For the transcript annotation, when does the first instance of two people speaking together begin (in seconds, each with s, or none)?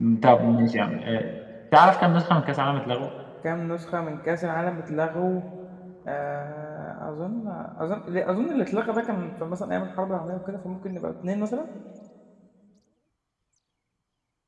none